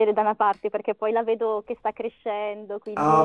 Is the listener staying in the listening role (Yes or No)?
No